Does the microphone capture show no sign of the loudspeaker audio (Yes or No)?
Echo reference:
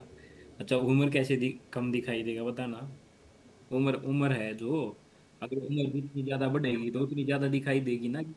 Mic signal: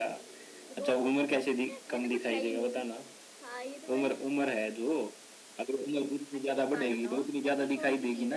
No